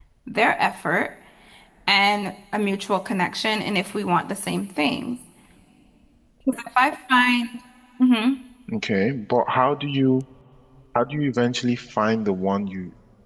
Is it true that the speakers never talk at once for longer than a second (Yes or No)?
Yes